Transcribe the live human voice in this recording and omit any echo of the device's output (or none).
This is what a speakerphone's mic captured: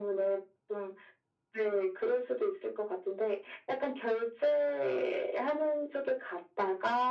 none